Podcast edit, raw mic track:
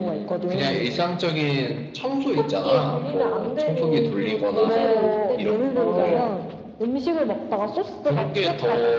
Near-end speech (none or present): present